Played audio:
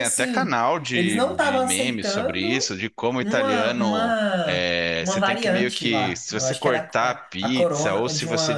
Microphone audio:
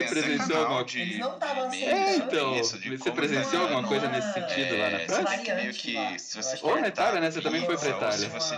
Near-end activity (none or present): present